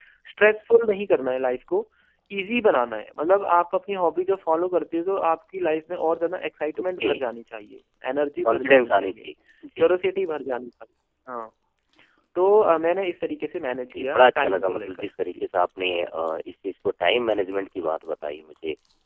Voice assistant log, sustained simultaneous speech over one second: present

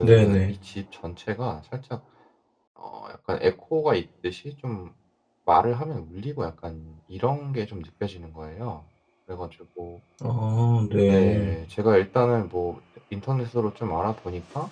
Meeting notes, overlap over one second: none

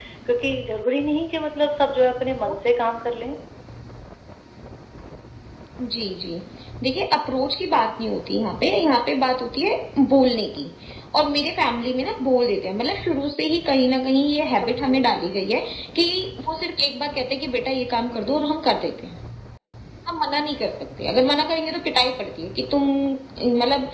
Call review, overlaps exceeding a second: none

